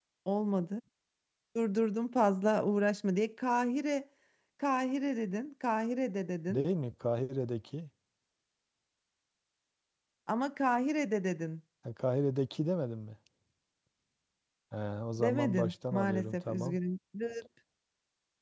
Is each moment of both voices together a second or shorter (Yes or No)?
No